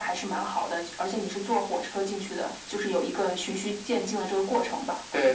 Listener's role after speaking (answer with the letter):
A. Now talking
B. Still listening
A